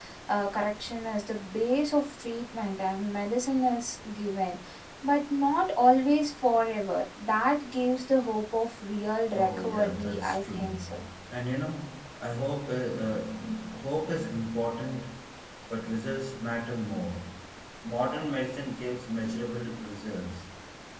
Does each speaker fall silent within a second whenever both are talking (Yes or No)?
No